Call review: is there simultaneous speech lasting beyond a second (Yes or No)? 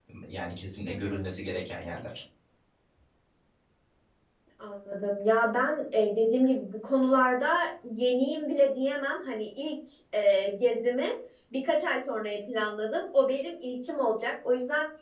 No